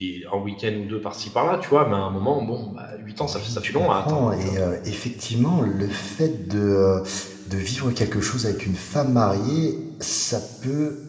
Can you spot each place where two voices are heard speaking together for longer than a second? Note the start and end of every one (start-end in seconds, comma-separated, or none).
3.2-4.5